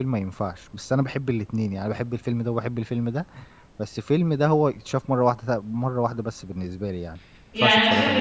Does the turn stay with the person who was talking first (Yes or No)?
No